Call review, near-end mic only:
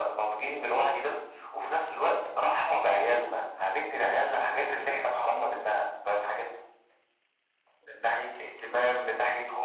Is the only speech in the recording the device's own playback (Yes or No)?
Yes